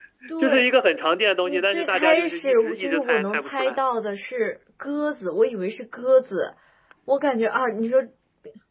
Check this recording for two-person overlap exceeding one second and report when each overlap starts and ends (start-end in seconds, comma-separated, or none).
1.4-3.8